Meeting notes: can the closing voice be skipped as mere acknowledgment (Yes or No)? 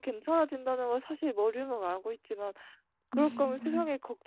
Yes